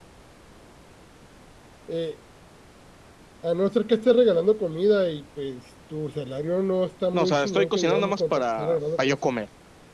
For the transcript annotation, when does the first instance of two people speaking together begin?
7.1 s

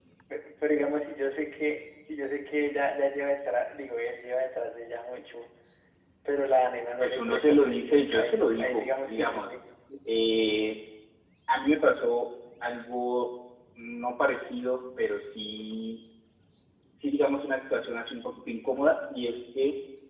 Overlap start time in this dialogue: 7.0 s

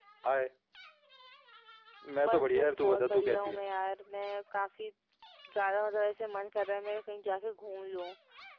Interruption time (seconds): 2.2 s

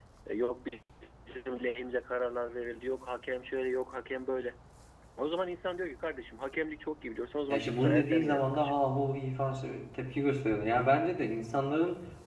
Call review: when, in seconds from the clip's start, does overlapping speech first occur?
7.5 s

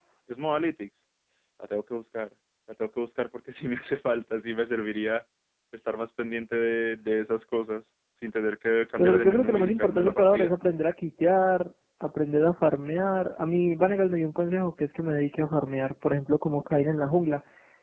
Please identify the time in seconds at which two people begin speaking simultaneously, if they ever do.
9.0 s

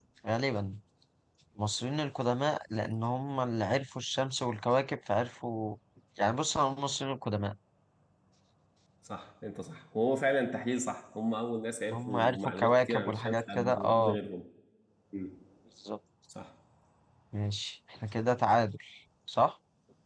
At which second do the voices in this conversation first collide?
11.9 s

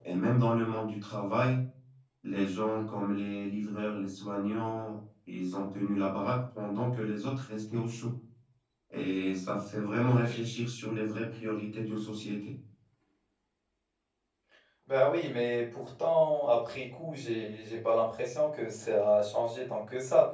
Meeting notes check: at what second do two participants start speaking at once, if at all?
none

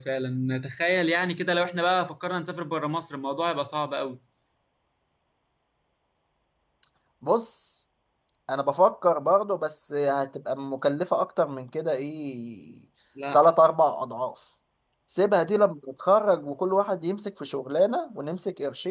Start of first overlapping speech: none

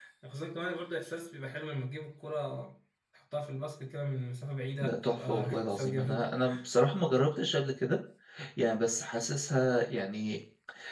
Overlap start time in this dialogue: 4.8 s

